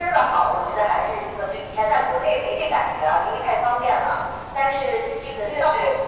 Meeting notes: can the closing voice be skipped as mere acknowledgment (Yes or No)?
Yes